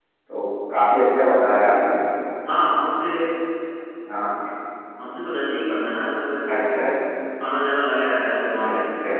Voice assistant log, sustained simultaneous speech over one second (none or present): none